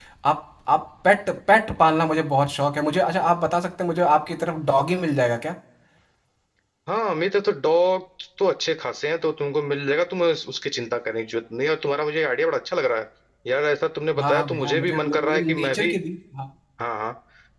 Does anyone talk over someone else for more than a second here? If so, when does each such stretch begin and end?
14.2-15.9

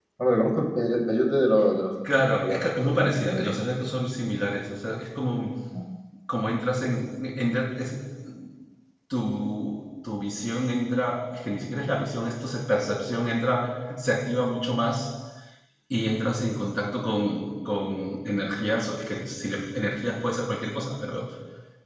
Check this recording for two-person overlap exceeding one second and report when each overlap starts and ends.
2.2-3.6

